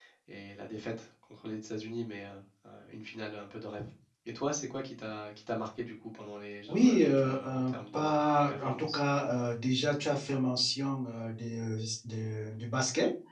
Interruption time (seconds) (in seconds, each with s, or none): 6.7 s